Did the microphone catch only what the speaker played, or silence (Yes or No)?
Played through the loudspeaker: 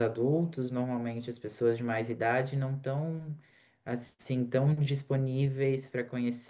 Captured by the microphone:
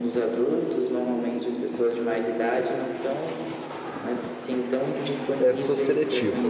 No